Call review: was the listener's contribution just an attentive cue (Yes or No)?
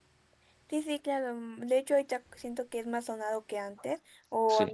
Yes